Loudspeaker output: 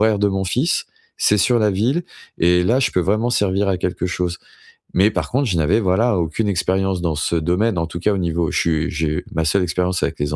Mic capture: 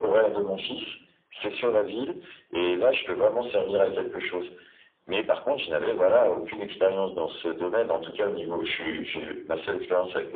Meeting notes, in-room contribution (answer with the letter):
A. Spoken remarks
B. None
B